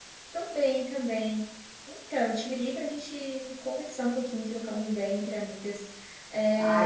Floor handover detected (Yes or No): Yes